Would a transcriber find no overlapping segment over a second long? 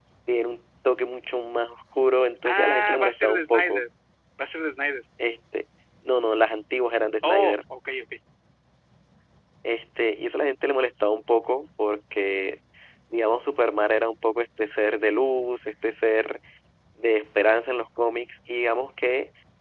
No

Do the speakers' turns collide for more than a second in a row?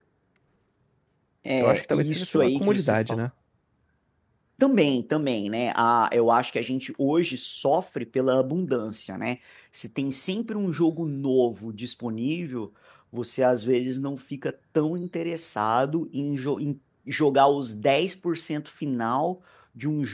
Yes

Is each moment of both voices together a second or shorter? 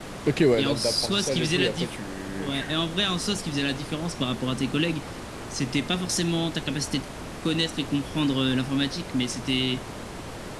No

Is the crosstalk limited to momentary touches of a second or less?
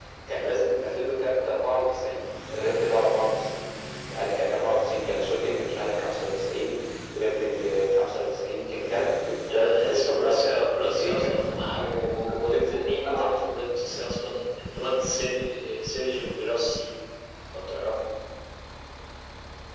No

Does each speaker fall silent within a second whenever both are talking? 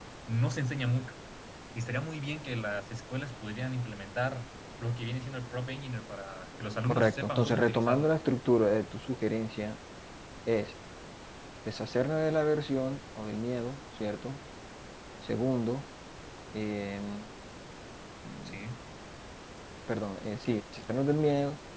No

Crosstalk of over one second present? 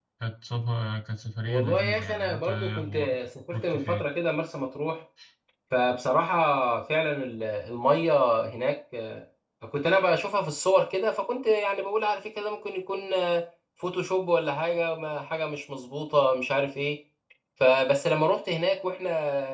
Yes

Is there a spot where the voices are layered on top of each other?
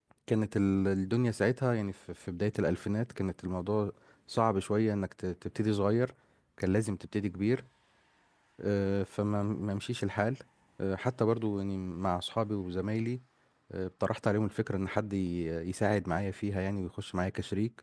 No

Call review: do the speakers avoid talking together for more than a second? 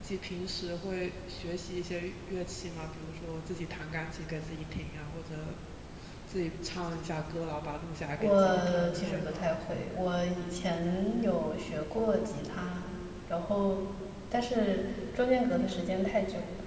No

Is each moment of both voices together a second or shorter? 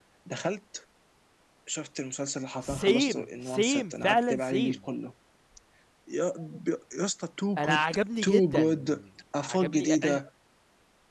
No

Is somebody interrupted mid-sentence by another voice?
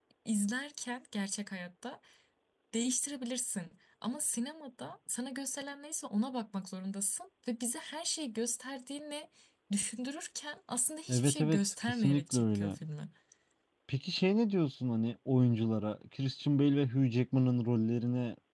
Yes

